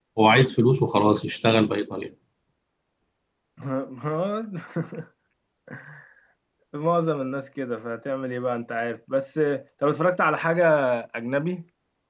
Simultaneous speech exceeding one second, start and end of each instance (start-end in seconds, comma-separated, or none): none